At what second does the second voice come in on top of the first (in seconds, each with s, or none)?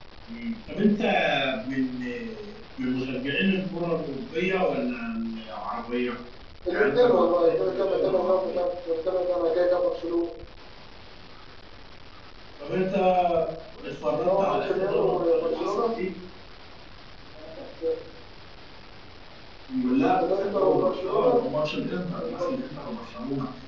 6.7 s